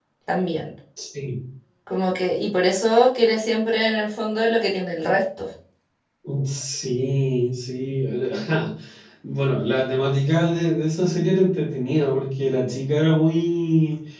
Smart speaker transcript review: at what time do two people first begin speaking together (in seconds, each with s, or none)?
none